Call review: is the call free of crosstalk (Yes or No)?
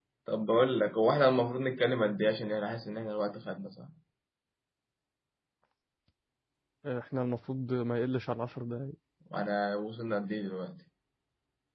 Yes